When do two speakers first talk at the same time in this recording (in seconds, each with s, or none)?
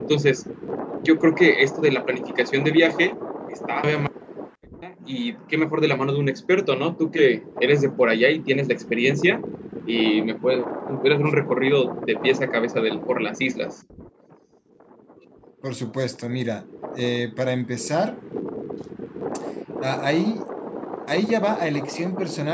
none